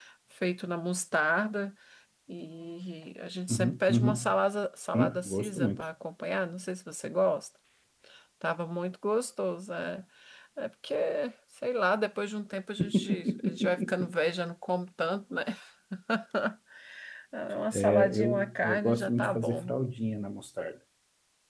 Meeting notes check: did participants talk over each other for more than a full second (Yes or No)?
Yes